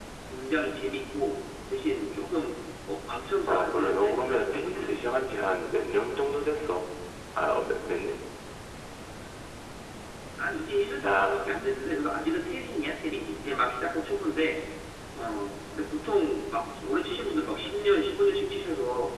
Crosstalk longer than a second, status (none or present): present